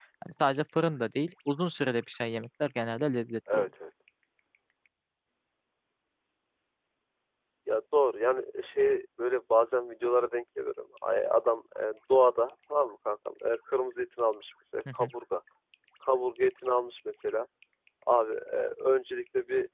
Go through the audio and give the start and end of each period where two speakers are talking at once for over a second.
none

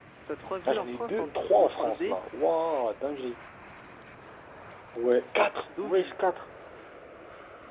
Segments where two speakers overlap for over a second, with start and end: 0.7-2.2

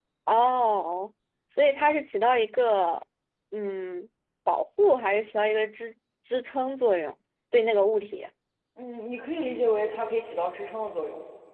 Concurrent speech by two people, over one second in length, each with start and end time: none

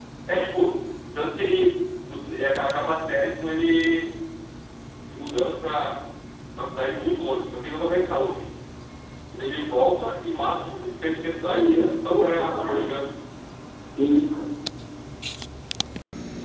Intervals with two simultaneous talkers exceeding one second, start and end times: 11.5-12.9

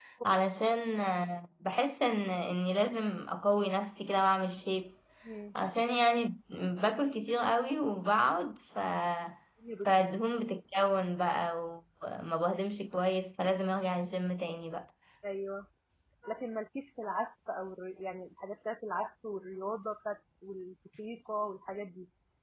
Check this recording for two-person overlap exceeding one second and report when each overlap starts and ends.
none

